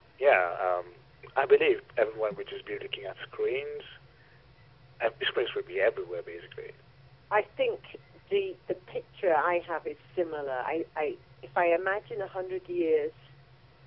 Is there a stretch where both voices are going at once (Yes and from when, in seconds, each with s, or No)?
No